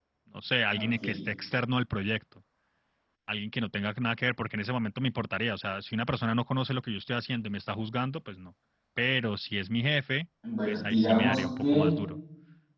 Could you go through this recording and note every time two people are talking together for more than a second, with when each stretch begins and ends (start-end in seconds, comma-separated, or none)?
10.7-11.9